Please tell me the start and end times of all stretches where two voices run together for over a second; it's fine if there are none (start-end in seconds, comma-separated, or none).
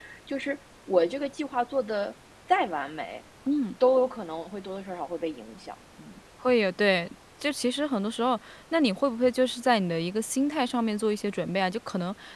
none